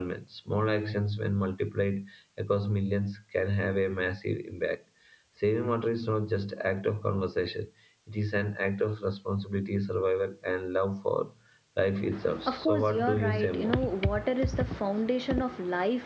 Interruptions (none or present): present